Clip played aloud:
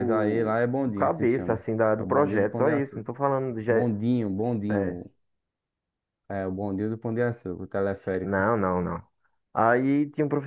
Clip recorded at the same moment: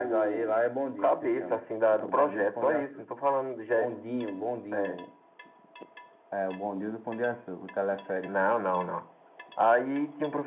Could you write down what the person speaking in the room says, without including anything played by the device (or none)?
none